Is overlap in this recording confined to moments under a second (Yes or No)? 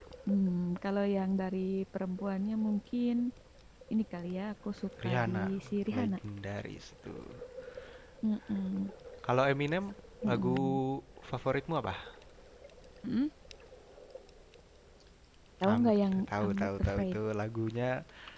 No